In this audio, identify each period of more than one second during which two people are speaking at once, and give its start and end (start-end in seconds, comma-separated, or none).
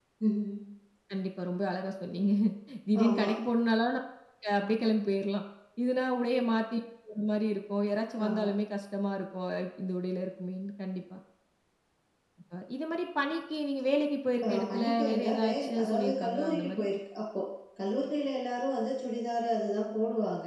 14.4-16.8